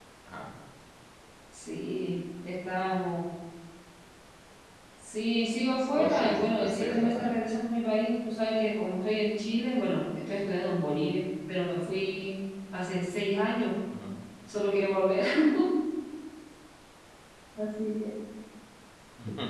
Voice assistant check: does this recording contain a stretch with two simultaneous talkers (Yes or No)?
Yes